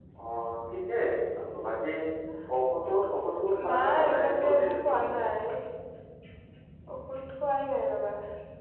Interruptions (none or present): present